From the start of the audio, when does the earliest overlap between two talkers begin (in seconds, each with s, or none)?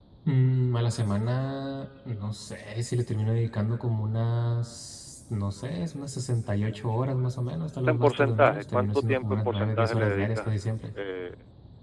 7.8 s